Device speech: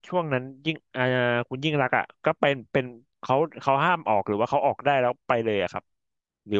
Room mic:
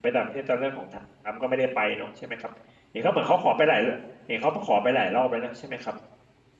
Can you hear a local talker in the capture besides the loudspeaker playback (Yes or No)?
Yes